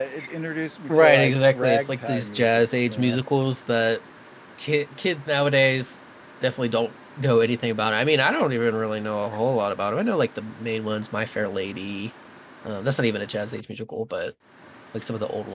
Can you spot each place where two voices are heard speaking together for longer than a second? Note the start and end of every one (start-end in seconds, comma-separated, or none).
0.9-3.2